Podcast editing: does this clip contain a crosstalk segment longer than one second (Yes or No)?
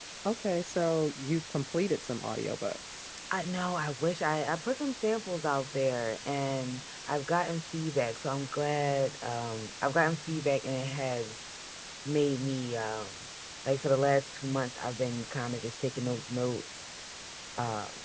No